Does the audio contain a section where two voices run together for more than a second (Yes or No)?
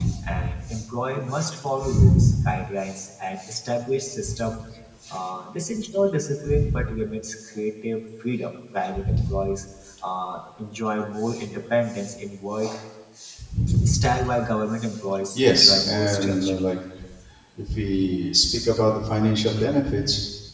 Yes